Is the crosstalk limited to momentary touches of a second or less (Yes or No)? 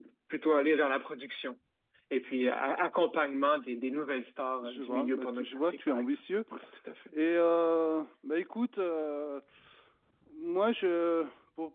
No